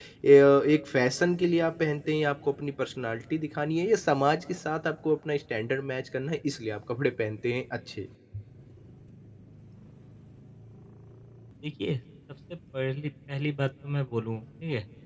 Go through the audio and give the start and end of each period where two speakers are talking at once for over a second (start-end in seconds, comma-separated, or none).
none